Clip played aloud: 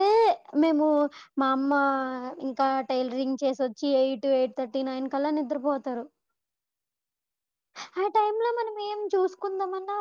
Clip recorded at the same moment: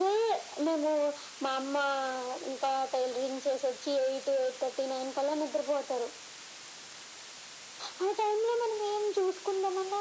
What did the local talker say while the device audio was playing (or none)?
none